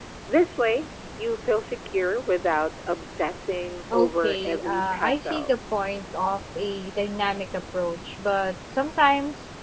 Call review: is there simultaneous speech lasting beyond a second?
Yes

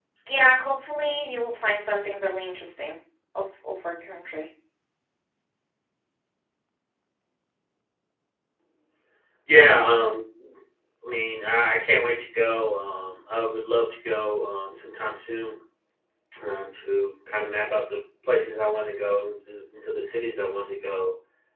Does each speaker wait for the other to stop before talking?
Yes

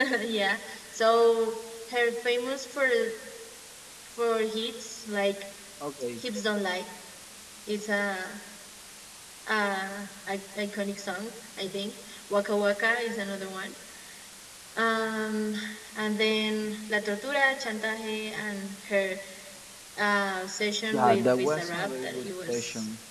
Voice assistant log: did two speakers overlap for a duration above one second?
Yes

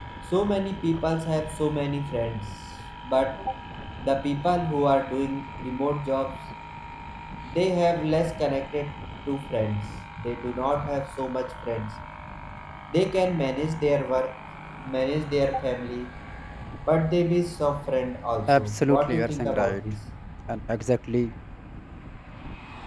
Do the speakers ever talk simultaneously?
Yes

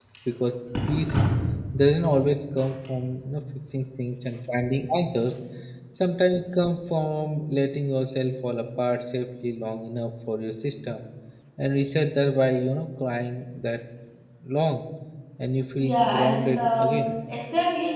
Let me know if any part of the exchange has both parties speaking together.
Yes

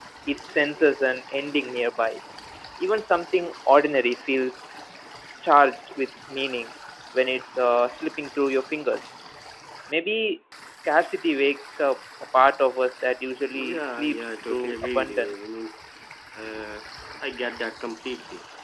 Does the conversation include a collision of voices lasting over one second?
Yes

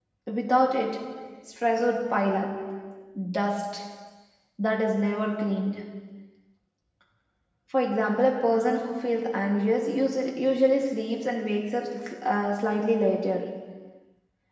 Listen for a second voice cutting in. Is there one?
No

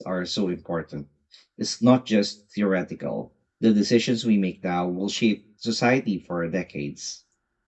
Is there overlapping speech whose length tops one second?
No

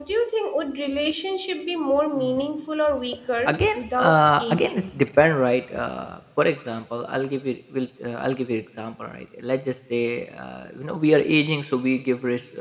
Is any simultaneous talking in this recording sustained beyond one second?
Yes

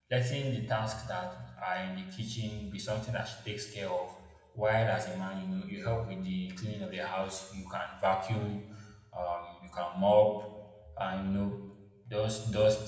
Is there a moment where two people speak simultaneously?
No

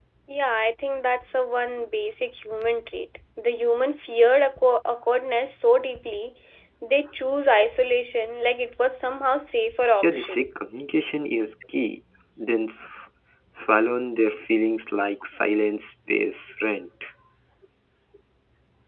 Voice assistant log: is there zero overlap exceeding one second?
Yes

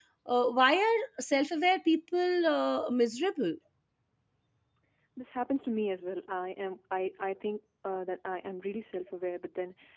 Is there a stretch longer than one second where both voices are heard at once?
No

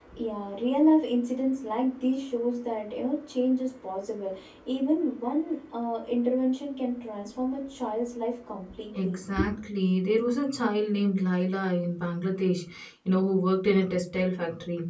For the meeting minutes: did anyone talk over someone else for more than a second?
No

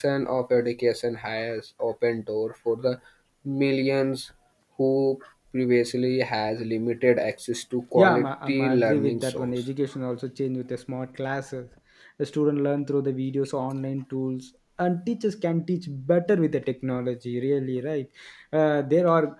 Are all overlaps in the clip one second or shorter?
No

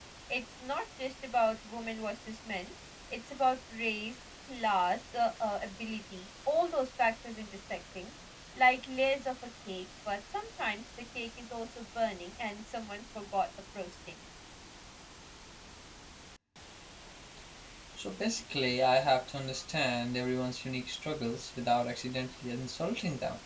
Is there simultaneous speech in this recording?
No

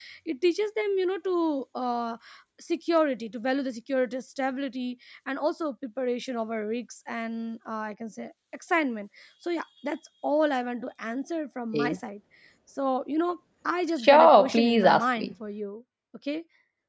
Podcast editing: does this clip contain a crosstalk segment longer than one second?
Yes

